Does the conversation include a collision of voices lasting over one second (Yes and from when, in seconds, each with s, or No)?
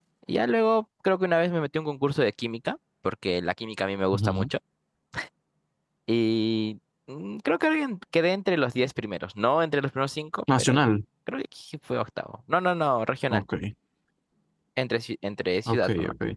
No